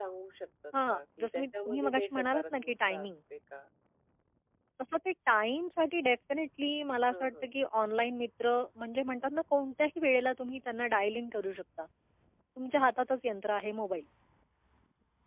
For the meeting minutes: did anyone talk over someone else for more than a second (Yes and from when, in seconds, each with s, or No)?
Yes, from 0.9 s